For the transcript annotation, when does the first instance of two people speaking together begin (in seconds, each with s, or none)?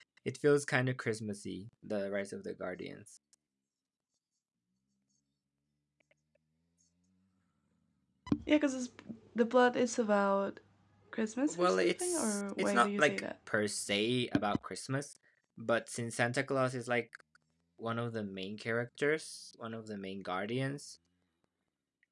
11.5 s